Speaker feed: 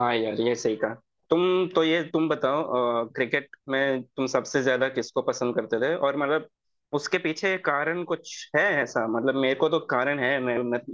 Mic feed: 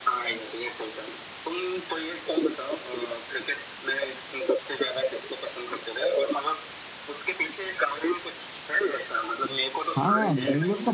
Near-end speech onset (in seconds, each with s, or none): 10.0 s